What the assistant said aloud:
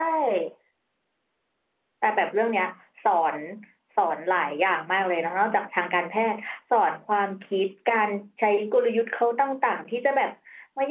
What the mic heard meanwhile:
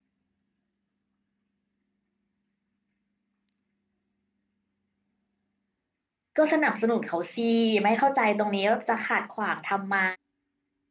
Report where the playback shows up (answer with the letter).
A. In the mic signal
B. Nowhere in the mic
B